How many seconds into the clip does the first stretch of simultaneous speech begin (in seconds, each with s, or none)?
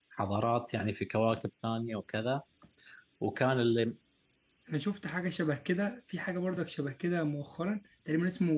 none